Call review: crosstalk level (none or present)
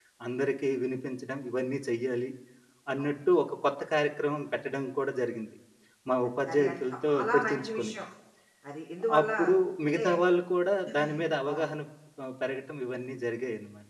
present